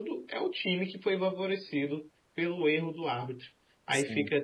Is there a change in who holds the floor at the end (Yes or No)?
No